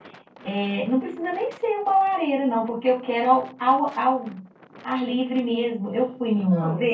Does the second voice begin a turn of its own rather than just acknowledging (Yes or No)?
No